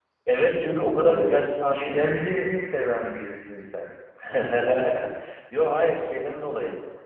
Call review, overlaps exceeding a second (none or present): present